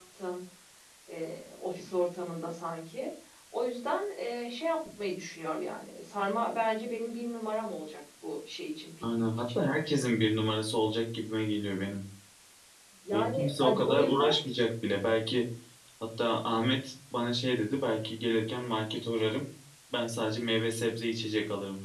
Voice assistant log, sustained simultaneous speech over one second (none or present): present